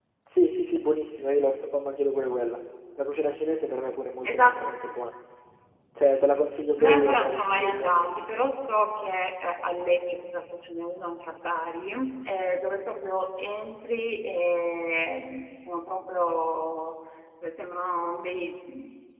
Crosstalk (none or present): present